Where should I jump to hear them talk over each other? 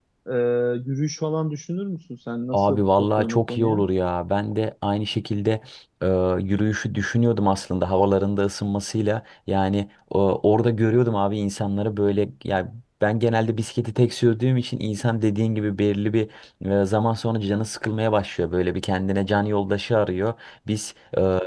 2.5 s

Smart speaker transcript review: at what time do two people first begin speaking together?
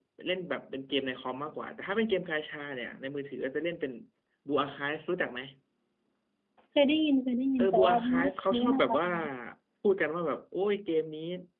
7.6 s

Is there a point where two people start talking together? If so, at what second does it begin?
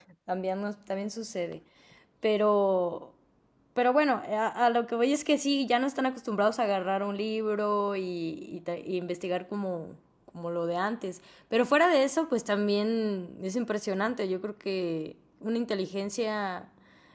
none

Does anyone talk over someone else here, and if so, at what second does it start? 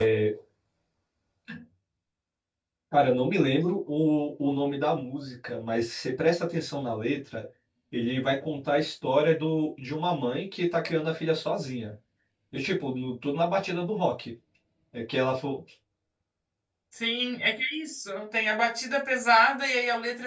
none

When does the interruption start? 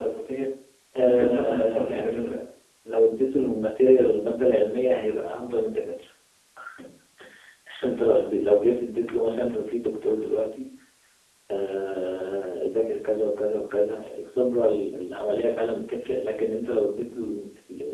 1.0 s

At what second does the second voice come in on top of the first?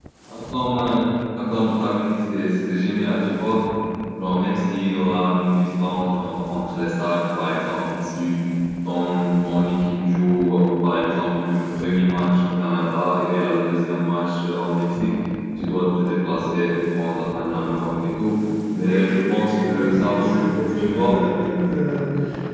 18.7 s

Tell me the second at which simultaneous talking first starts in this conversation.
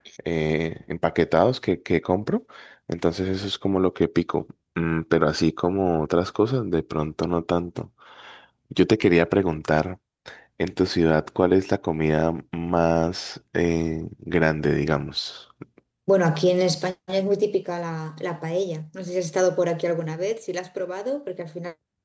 none

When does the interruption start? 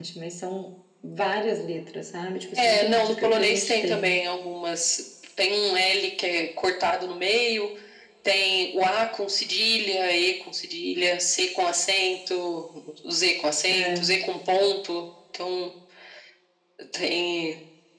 2.6 s

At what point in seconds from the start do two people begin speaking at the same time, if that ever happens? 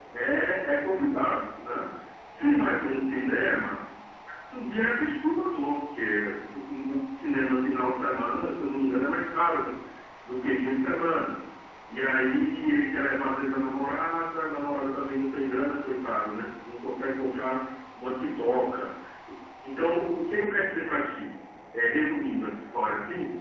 none

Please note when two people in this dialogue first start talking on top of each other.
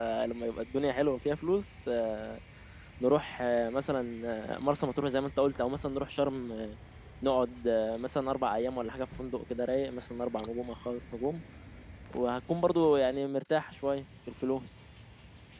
none

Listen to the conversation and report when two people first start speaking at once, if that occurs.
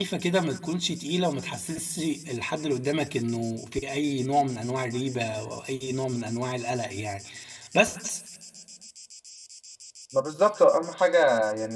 none

